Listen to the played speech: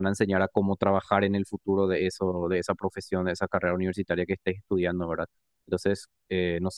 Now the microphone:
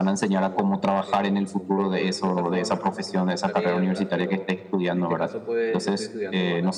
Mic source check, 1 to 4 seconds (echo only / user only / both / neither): both